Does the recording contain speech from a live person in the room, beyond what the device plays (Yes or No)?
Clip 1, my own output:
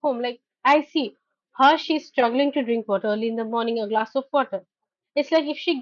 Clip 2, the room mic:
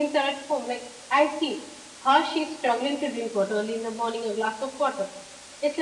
No